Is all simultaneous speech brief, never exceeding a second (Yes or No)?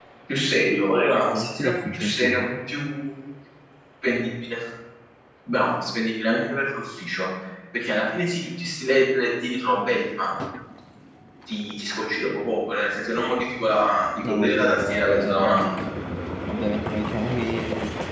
No